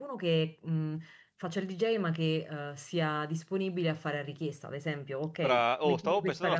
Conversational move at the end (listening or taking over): taking over